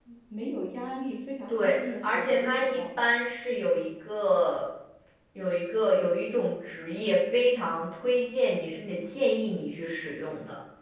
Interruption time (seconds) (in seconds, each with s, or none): 1.5 s